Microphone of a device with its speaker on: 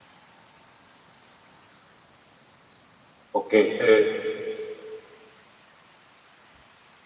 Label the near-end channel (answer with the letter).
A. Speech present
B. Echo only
A